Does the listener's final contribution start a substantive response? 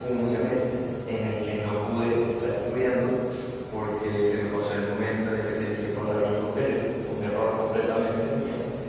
No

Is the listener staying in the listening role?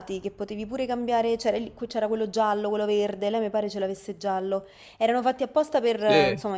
No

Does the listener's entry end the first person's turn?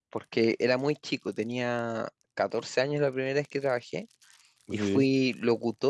No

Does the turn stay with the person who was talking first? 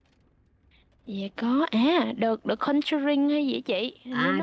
No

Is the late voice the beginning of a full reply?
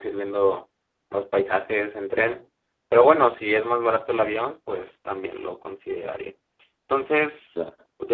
No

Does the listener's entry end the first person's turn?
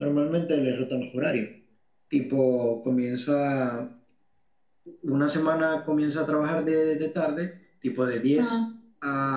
No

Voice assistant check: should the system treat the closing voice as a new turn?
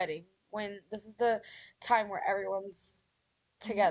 Yes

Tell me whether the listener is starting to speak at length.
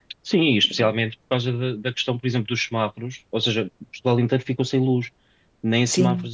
No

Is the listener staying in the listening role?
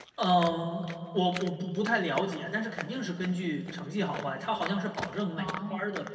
Yes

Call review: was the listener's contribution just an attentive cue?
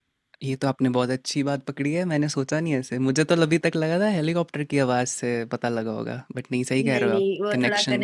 No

